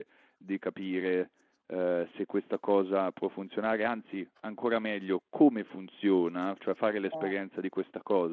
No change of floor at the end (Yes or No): Yes